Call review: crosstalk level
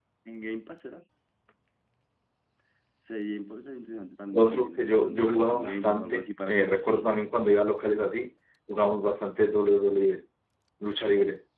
present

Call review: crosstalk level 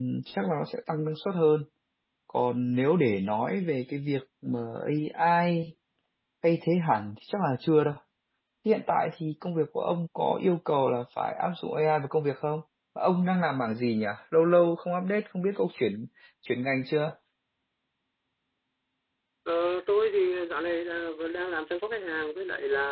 none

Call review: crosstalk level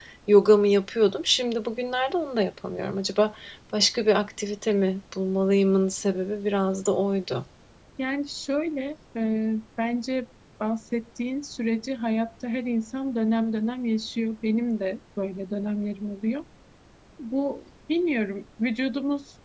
none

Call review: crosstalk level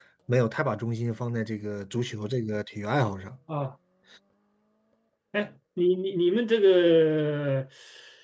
none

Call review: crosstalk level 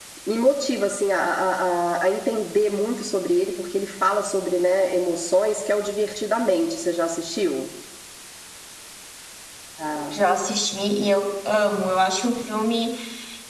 none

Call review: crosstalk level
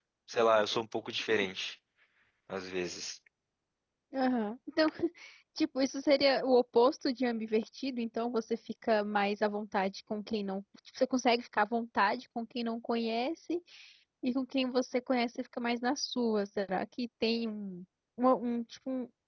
none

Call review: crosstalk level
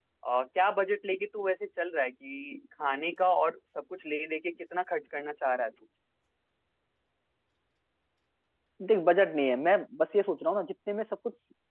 none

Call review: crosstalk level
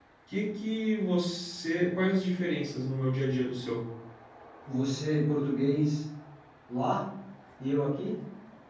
none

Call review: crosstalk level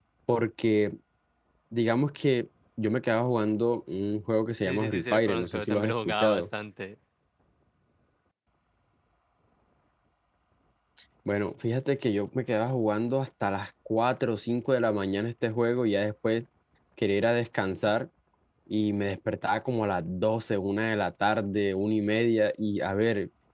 present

